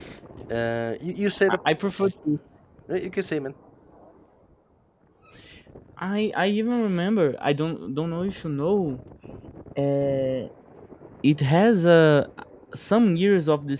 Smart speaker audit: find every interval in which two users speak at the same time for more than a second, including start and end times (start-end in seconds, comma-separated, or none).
none